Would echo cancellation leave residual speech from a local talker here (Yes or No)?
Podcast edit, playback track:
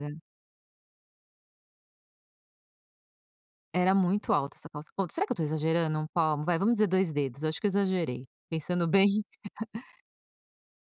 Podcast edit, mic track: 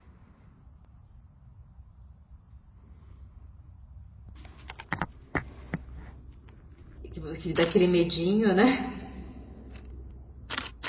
Yes